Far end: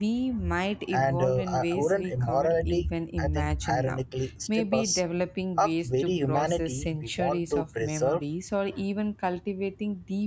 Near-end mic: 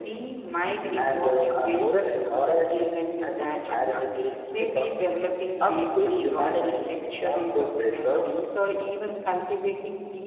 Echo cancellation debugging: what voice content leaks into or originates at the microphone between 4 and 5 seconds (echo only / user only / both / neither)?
echo only